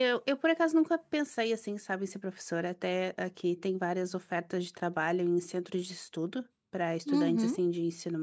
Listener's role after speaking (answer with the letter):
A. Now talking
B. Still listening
B